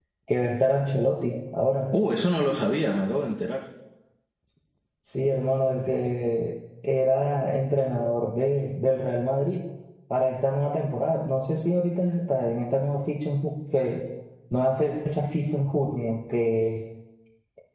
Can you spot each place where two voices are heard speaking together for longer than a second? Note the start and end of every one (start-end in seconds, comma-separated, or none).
none